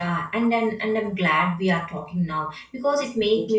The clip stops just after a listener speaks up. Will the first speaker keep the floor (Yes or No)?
Yes